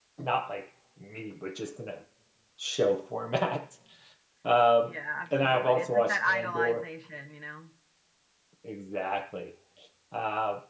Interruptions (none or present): present